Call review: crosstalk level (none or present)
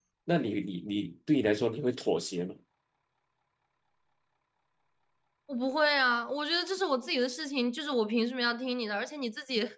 none